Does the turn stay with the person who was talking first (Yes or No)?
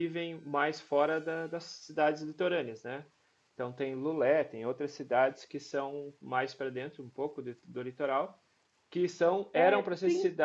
Yes